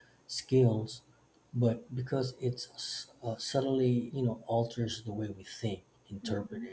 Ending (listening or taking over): listening